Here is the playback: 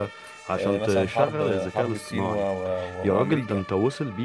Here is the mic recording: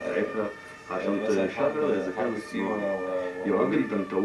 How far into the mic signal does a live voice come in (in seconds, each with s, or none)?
none